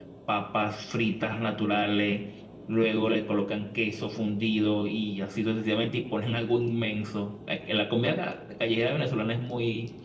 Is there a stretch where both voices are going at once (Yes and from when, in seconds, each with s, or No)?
No